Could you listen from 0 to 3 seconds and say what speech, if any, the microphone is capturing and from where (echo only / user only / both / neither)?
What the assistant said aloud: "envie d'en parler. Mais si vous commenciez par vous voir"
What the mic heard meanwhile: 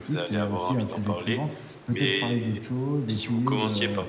both